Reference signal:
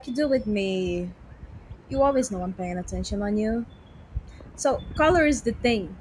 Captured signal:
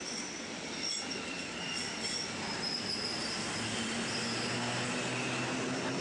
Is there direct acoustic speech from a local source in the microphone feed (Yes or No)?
No